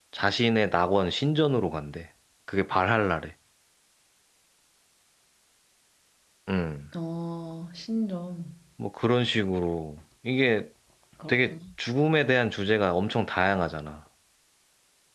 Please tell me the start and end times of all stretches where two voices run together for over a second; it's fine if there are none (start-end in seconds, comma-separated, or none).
none